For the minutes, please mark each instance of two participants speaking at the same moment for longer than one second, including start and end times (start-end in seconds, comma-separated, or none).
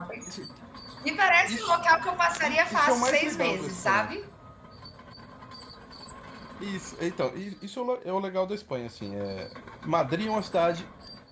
2.4-4.1